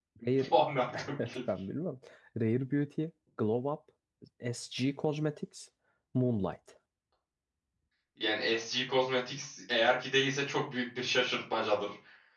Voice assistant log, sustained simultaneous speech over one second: none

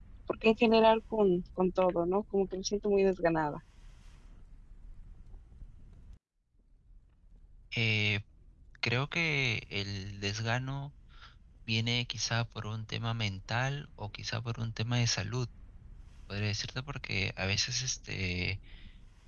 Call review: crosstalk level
none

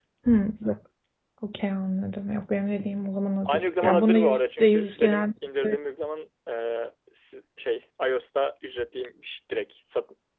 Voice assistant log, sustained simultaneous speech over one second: present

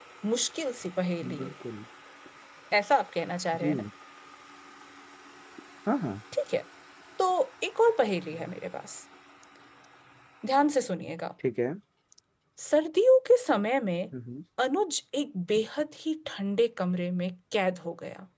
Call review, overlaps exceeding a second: none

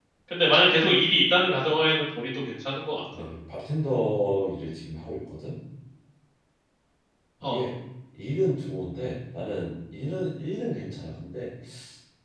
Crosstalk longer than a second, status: none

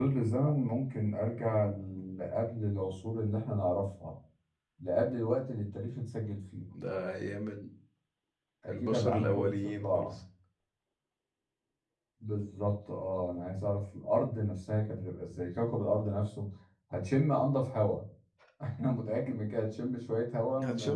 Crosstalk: present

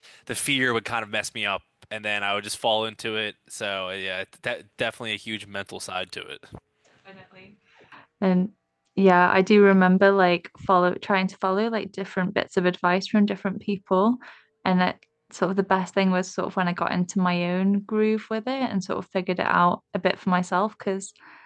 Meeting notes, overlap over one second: none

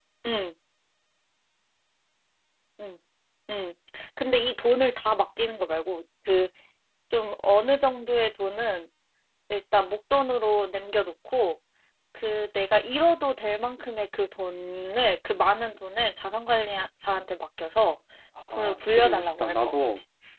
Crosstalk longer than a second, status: present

